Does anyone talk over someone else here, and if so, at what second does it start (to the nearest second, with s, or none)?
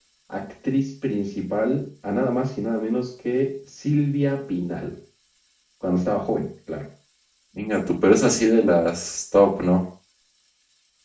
none